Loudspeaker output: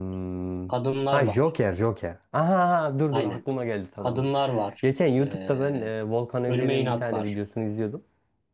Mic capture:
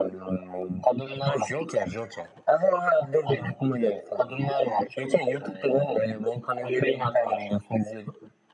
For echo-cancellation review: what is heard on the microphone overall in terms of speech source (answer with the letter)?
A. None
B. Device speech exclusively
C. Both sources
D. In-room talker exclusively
B